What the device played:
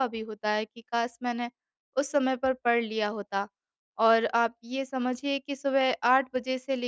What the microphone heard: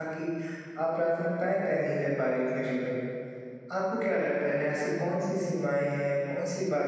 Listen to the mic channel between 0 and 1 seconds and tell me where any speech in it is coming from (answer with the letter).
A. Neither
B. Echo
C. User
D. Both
C